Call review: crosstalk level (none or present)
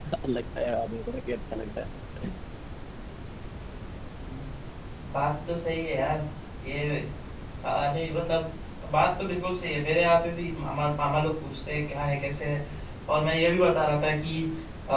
none